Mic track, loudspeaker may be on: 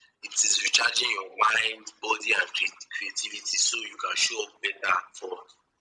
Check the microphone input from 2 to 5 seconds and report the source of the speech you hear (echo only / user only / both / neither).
echo only